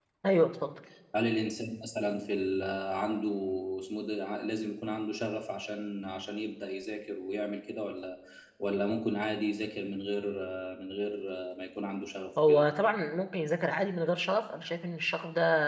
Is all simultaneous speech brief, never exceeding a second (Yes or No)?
Yes